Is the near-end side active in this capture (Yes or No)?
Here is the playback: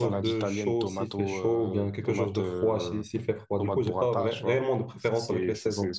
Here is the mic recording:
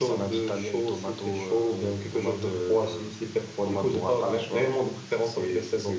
No